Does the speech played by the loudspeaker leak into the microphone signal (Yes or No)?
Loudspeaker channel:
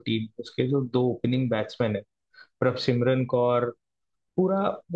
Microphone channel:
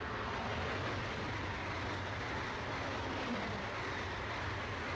No